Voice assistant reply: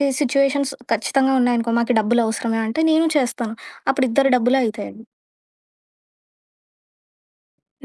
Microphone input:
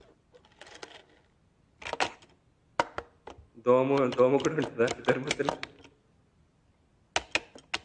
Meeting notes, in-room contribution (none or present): present